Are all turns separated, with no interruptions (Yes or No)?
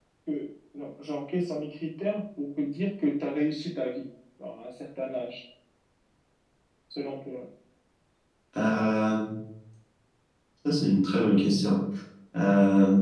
Yes